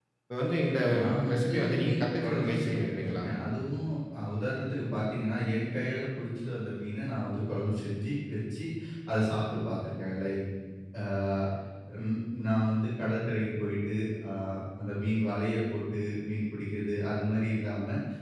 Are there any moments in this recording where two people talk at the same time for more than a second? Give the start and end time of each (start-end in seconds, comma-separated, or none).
1.0-3.2